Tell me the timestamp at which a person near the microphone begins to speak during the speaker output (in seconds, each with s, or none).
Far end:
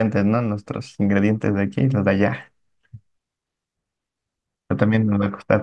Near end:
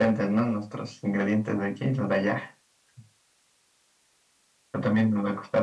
none